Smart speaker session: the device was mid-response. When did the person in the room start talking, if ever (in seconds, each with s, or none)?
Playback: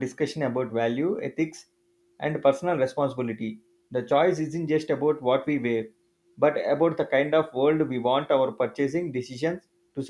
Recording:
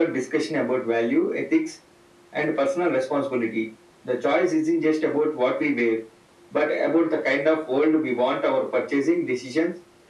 none